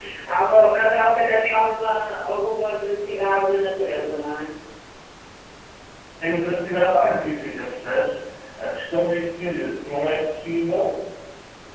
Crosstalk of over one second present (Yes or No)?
No